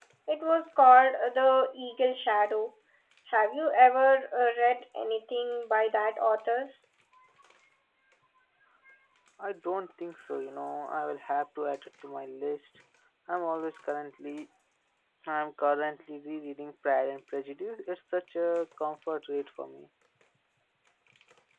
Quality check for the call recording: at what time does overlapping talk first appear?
none

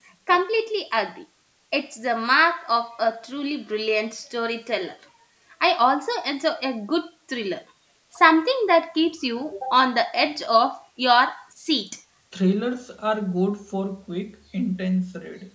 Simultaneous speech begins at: none

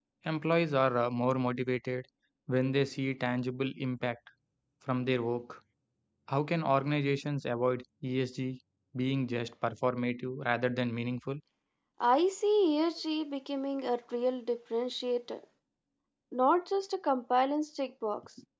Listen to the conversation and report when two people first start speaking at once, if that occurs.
none

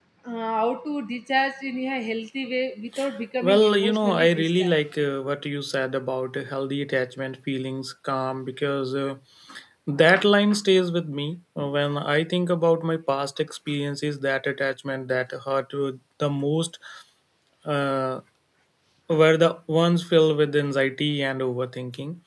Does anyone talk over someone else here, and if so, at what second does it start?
3.4 s

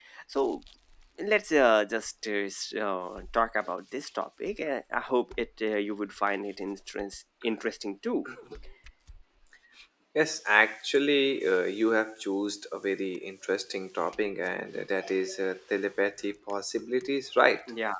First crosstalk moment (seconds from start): none

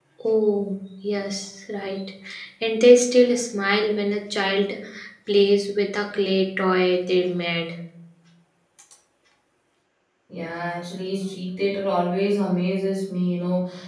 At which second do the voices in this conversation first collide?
none

